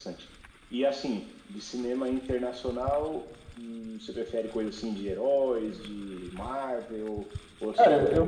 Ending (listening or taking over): taking over